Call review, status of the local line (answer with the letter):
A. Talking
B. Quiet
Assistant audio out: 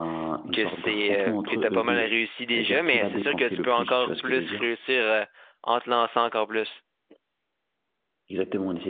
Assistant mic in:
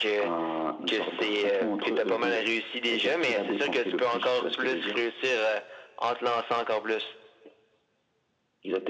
B